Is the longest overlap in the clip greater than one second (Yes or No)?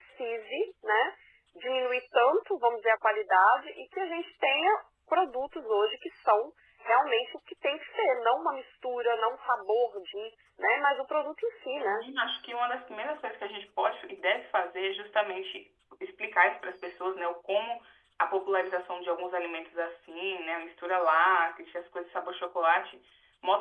No